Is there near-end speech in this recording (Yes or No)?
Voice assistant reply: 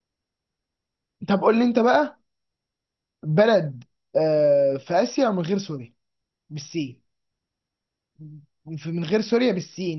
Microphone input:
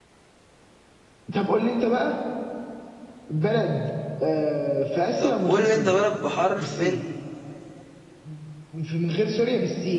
Yes